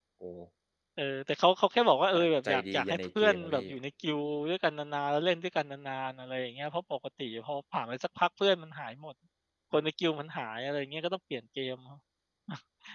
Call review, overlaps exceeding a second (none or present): present